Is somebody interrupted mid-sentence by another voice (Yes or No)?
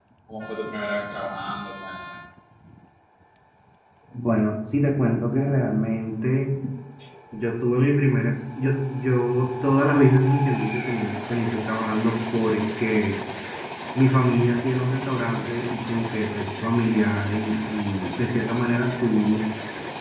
No